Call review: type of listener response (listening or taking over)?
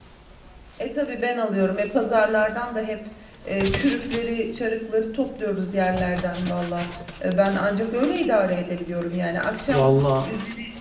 listening